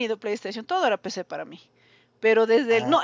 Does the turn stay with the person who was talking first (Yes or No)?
Yes